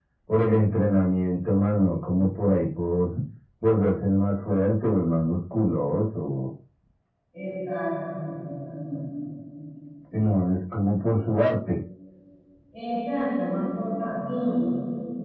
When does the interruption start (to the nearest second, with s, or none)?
none